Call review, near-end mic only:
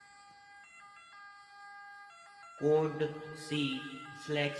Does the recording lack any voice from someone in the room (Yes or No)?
No